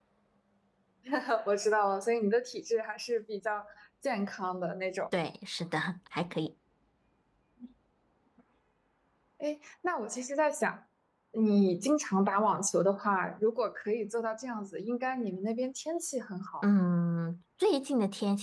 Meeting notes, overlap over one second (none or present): none